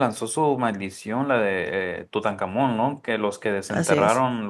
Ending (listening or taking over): listening